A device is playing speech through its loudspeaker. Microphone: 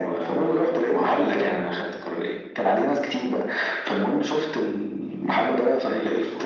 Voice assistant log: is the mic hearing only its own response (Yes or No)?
Yes